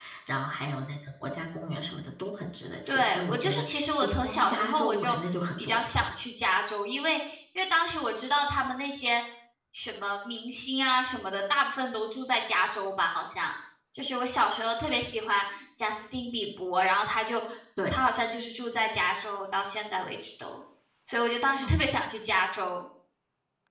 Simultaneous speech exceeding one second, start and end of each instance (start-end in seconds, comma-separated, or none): 2.9-5.2